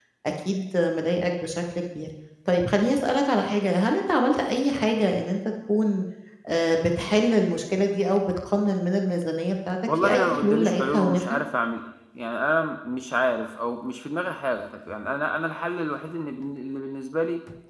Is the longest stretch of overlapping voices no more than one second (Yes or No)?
No